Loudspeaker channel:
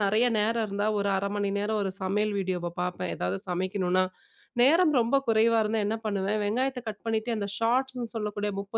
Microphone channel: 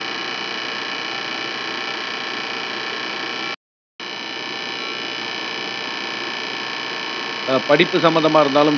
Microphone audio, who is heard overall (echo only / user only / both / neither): user only